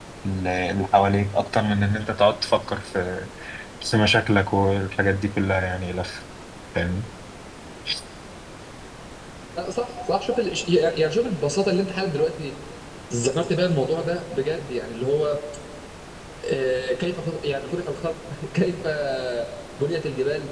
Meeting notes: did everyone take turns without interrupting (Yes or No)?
Yes